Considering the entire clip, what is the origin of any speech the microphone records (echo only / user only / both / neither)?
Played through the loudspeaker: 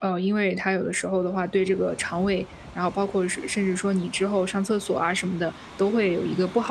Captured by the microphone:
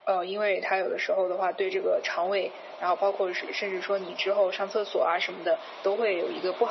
echo only